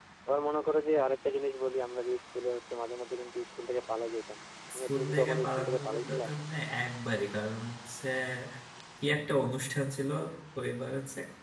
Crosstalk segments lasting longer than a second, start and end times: 4.8-6.2

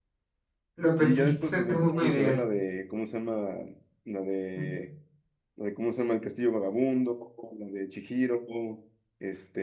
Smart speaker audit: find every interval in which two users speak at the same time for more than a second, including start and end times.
1.0-2.4

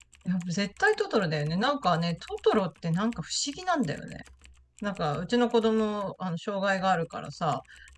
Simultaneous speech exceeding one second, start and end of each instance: none

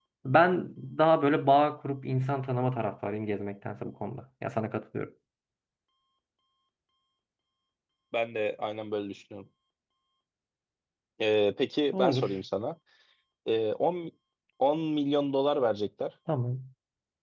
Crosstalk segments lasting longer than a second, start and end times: none

